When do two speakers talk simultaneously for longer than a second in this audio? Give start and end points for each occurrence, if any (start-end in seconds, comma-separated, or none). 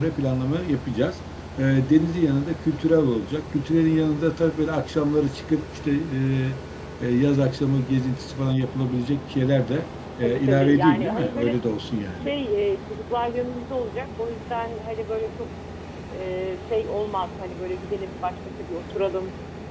10.2-11.6